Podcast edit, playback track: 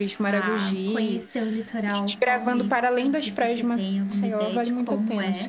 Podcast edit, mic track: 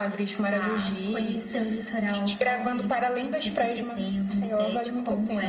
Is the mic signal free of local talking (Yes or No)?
Yes